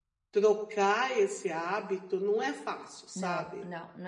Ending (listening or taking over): taking over